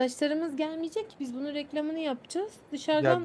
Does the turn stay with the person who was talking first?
No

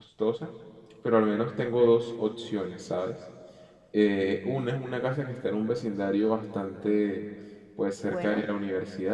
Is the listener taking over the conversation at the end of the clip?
No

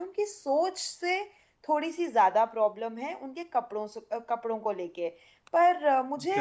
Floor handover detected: Yes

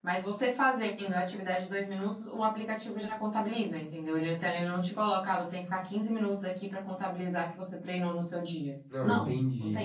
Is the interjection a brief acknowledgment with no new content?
No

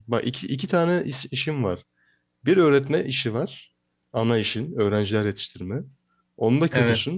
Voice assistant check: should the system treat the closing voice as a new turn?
No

